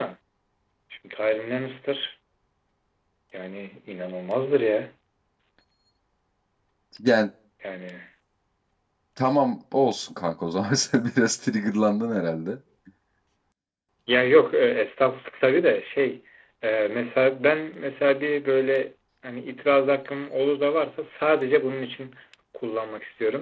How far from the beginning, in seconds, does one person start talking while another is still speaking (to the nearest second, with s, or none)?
none